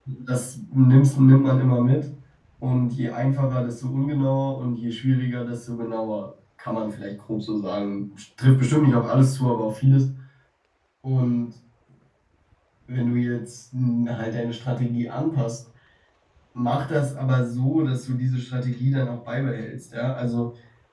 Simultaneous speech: No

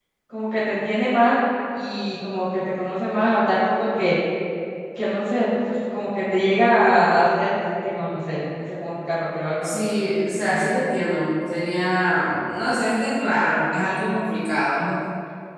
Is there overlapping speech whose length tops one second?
No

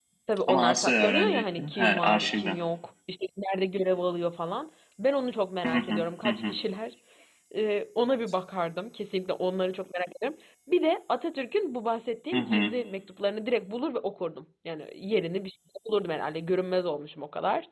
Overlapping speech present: Yes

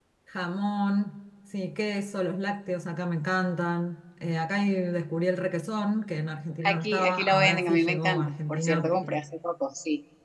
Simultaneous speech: Yes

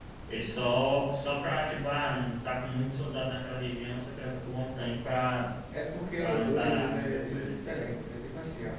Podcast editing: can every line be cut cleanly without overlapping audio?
No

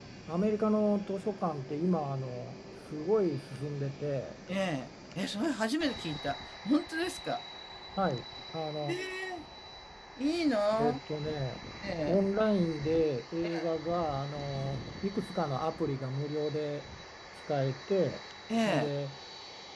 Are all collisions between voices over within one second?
Yes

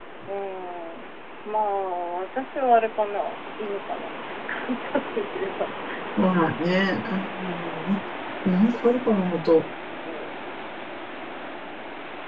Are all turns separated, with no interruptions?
Yes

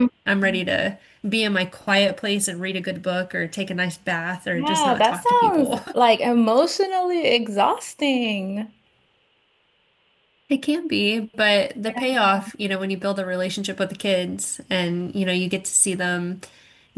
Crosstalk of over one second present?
Yes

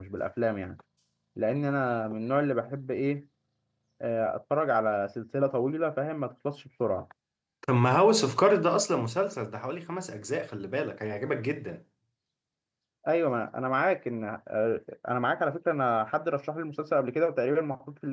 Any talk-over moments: No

